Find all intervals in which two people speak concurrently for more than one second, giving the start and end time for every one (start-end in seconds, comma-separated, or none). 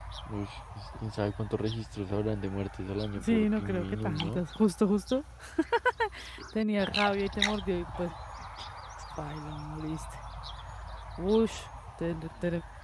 3.2-4.4